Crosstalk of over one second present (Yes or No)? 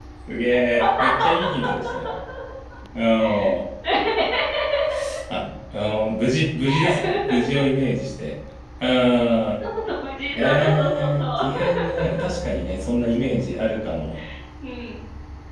Yes